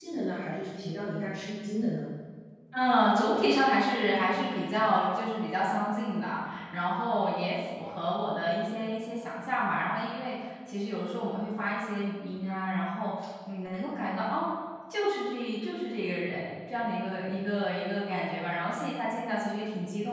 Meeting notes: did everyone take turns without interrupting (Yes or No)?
Yes